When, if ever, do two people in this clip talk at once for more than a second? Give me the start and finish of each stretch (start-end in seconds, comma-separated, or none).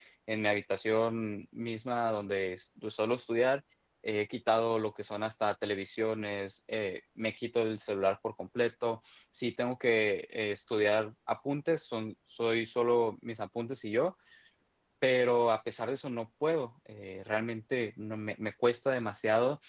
none